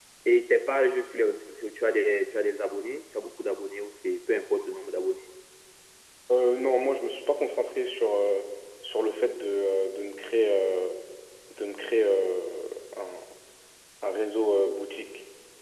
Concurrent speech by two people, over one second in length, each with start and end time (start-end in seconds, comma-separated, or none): none